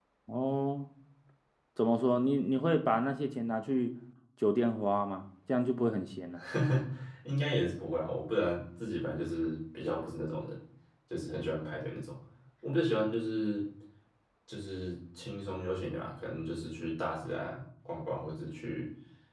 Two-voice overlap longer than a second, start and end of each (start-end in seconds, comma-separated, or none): none